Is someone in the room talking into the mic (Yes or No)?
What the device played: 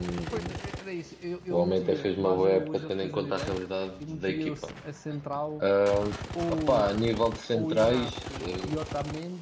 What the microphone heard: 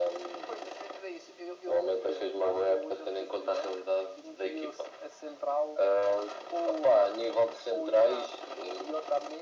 No